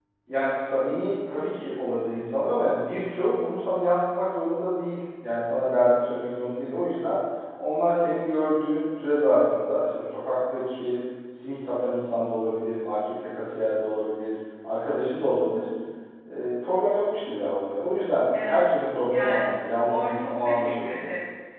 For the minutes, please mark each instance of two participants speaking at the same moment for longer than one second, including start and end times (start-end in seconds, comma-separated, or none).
19.1-21.0